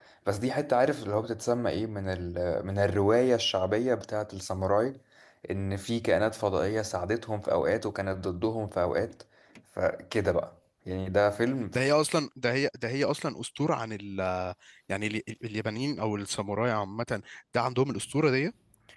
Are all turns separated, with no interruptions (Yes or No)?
Yes